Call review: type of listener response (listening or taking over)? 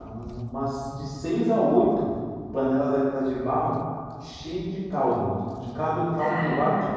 listening